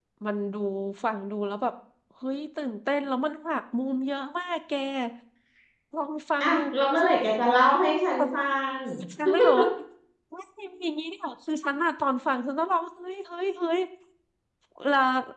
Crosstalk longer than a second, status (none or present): none